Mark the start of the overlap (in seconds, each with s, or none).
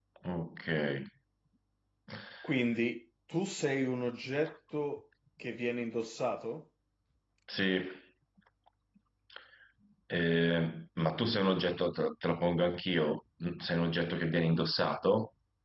none